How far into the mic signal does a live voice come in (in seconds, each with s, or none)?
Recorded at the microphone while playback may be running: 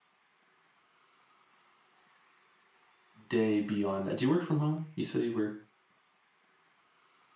3.3 s